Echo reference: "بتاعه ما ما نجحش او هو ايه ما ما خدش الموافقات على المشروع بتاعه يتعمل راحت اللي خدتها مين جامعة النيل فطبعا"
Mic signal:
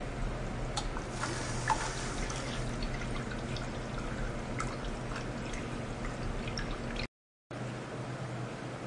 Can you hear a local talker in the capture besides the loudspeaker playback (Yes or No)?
No